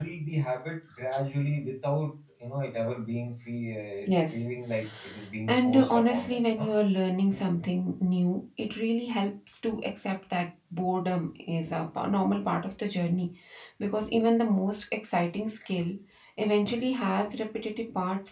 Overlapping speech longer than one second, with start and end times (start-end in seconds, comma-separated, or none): 5.5-6.7